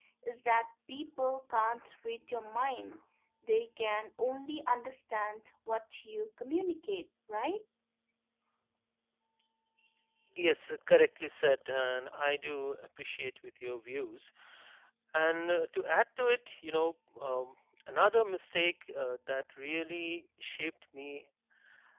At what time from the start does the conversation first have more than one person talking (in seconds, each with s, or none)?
none